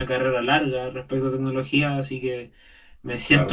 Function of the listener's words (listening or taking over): listening